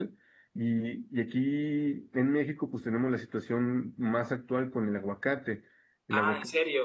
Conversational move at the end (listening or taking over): taking over